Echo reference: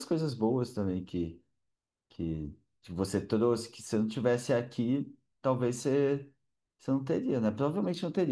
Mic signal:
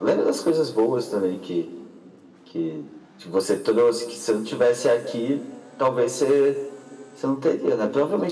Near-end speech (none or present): none